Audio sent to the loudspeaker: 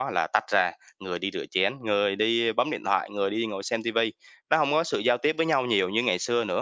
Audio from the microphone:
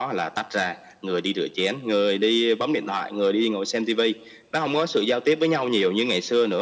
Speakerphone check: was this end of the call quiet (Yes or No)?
Yes